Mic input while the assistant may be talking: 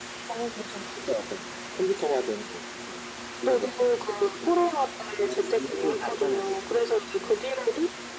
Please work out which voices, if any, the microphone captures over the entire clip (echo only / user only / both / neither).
echo only